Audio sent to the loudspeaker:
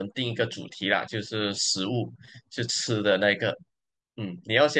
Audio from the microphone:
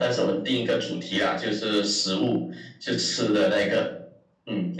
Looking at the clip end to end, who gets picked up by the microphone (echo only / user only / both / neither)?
echo only